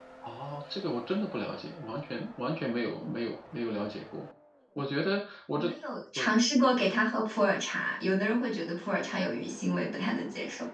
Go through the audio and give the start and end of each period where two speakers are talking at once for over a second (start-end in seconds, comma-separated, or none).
none